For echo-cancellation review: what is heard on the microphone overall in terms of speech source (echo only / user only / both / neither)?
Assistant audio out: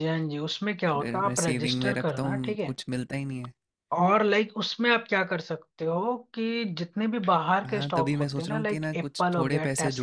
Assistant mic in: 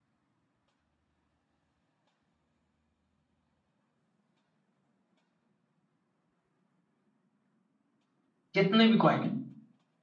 user only